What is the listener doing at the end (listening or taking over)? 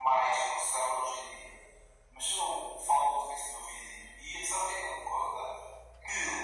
listening